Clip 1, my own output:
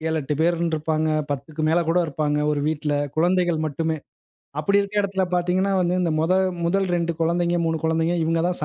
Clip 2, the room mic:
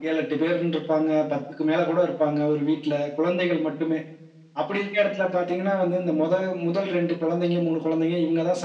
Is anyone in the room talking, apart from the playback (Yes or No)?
No